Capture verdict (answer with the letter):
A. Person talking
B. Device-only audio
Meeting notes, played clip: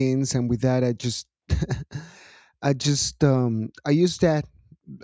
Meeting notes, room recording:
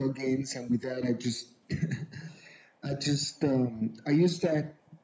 B